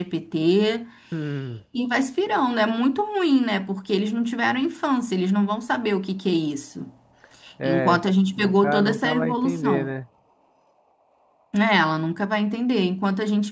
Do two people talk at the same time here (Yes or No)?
Yes